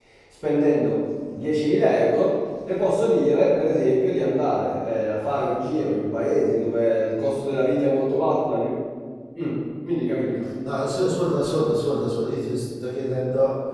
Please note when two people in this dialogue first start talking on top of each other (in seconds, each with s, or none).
none